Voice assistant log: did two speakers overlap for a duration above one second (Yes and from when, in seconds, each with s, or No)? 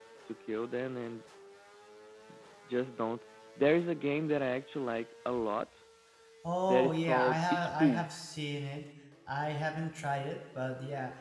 Yes, from 6.7 s